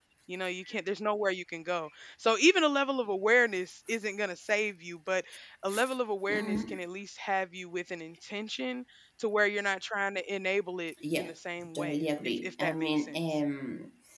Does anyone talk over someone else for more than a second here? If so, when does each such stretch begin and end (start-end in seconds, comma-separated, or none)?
11.7-13.4